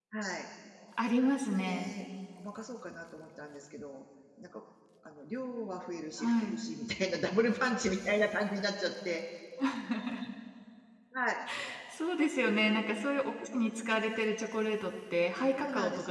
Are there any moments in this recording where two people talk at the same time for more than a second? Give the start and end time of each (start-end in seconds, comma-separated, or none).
none